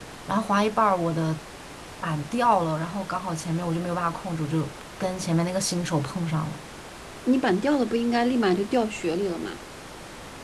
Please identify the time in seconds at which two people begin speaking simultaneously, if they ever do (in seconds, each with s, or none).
none